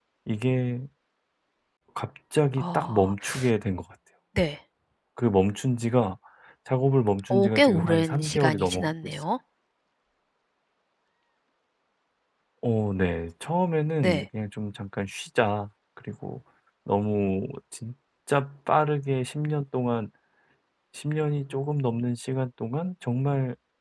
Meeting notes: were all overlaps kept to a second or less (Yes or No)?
No